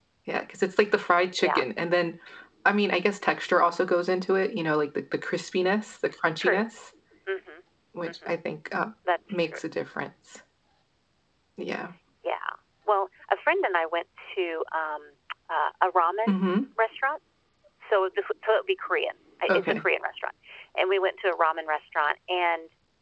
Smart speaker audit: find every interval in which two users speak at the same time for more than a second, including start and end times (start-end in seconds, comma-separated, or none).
none